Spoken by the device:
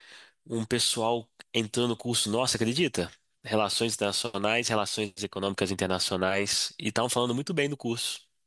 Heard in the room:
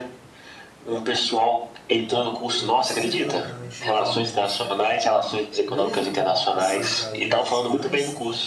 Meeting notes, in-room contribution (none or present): present